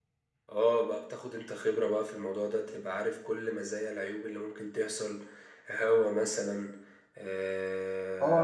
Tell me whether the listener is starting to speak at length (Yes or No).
Yes